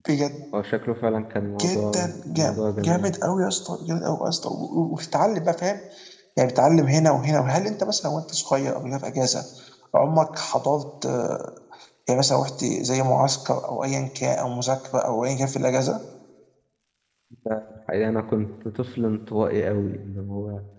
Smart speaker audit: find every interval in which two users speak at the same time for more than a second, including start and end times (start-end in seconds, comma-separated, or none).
1.6-3.1